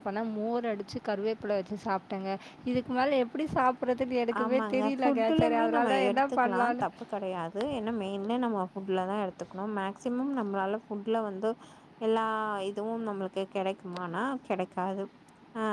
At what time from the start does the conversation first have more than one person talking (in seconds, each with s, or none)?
4.3 s